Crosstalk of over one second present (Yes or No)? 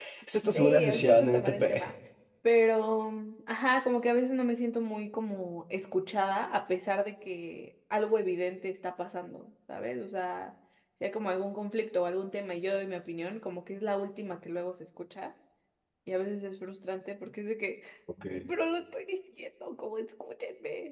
Yes